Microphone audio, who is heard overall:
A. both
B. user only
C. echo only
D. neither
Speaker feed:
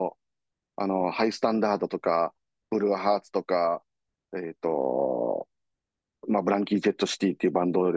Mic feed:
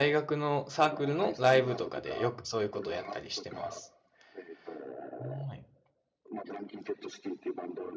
A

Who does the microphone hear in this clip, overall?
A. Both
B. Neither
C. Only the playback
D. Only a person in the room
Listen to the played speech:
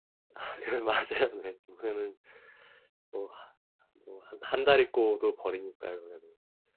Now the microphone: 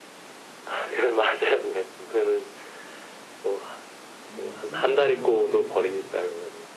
A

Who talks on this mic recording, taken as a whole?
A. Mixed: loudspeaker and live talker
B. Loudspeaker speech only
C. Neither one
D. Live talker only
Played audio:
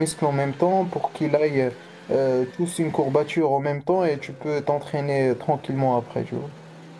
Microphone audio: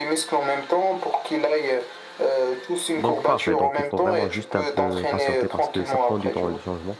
A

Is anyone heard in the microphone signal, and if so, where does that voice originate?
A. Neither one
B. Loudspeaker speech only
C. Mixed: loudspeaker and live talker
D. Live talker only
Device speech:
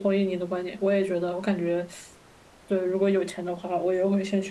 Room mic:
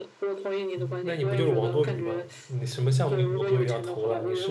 C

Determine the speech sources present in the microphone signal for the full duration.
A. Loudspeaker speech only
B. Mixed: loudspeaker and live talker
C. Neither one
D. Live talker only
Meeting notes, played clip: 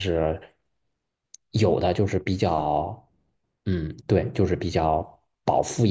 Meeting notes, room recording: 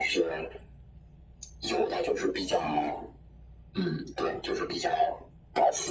A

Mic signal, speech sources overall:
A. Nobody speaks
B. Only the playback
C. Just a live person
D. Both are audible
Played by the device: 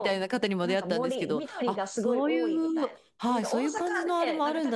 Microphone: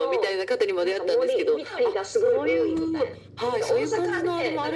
B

